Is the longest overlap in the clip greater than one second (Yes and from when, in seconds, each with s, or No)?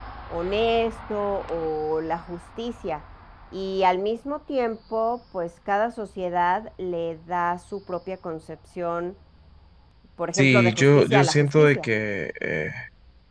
Yes, from 10.3 s